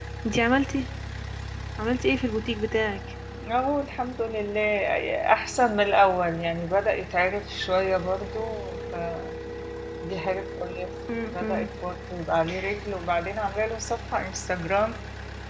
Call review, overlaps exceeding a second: none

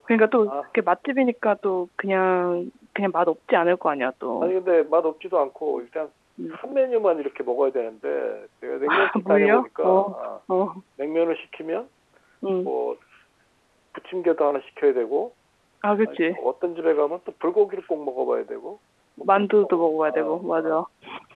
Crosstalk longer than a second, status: present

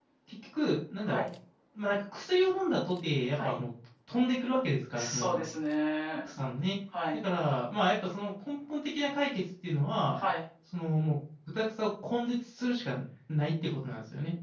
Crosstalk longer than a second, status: none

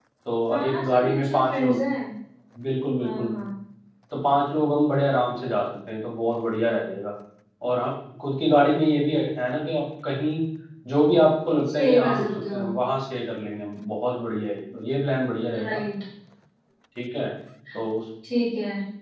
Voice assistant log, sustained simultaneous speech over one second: present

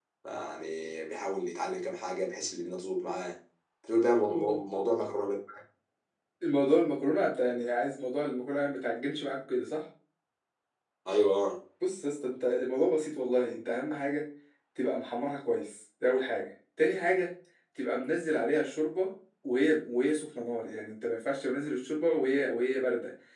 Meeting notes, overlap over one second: none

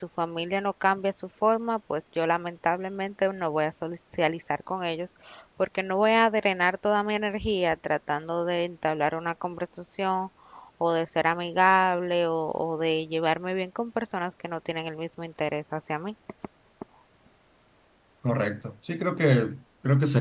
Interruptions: none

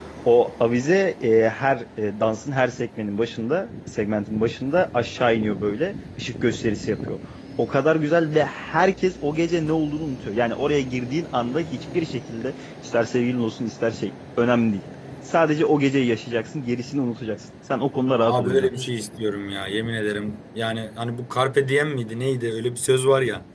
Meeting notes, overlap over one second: none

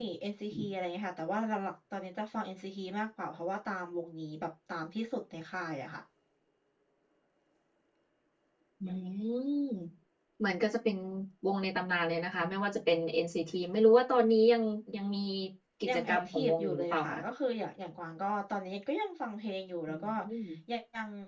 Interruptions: present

